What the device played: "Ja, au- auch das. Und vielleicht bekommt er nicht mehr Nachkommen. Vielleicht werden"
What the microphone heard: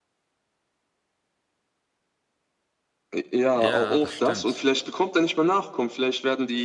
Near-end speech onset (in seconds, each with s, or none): 3.5 s